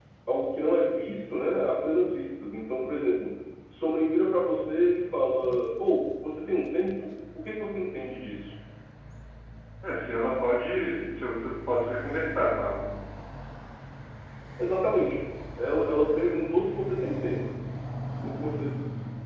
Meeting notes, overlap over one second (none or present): none